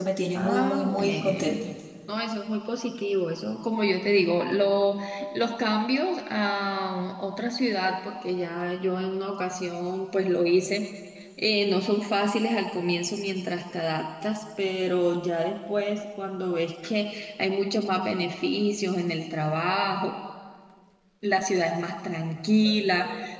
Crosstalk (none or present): present